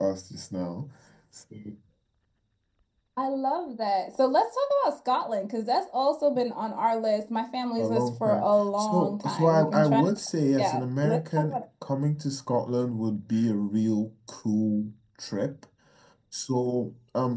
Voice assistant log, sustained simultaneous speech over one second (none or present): present